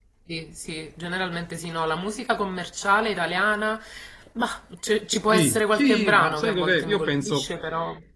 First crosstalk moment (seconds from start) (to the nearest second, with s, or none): 5 s